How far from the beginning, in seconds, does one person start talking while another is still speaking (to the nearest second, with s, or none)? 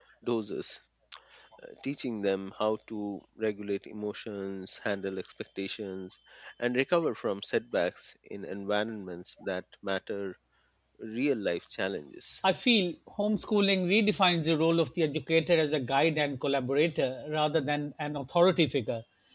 none